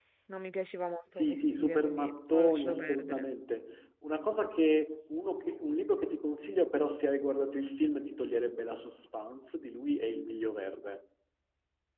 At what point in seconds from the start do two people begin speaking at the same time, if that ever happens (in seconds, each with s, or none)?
1.1 s